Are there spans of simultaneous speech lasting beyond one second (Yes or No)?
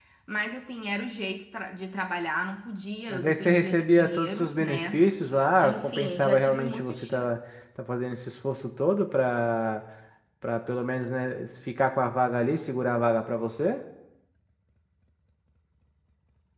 Yes